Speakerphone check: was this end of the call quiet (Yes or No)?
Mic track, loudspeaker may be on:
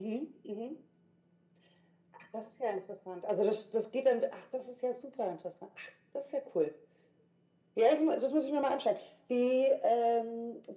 Yes